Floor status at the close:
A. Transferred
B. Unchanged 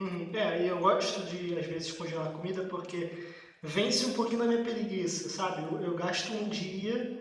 B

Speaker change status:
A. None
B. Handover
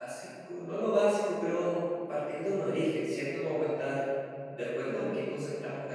A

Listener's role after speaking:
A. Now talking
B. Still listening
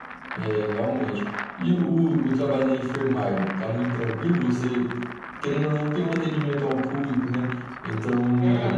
B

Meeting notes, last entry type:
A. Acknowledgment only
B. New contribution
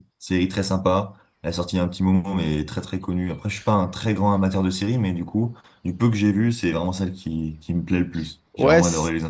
B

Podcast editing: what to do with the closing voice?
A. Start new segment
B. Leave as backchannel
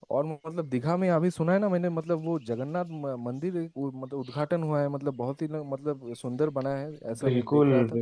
A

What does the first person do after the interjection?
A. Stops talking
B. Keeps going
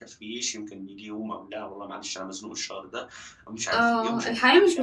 A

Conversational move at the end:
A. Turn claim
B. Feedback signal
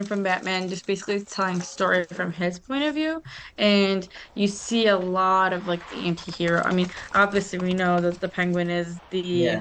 B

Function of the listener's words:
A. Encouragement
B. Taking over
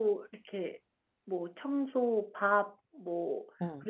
A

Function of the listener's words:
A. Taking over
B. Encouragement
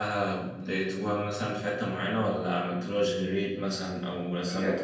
A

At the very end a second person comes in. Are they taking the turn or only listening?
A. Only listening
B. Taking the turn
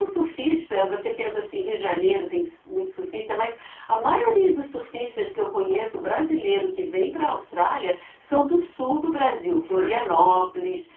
A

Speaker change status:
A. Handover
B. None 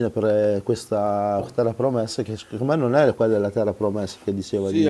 A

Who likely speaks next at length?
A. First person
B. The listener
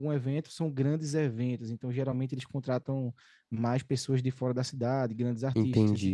B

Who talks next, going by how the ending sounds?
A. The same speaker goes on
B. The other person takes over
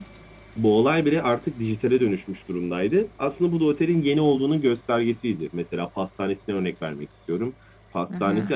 A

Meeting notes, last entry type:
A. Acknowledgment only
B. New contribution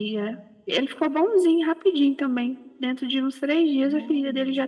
A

